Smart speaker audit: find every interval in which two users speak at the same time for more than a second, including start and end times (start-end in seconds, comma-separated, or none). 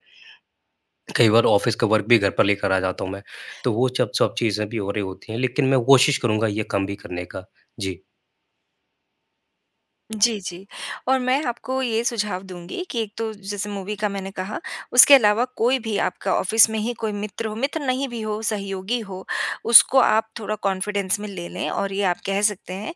none